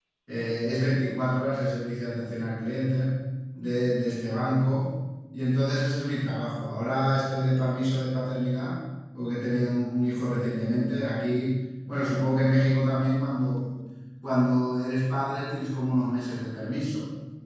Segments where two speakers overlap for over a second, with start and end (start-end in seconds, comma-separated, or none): none